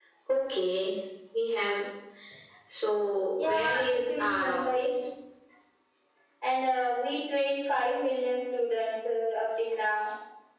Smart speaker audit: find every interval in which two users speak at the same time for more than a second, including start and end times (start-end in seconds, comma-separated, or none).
3.4-4.9